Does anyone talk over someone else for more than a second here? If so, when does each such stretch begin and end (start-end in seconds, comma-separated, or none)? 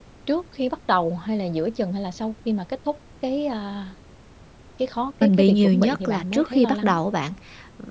5.2-7.0